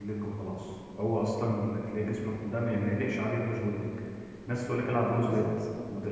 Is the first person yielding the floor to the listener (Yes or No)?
No